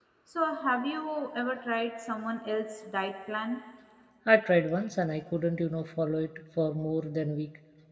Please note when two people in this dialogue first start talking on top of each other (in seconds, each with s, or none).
none